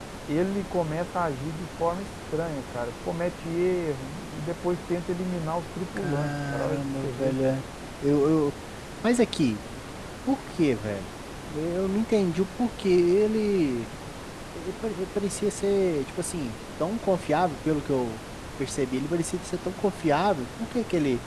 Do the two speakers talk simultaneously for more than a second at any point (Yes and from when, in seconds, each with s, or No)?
Yes, from 6.0 s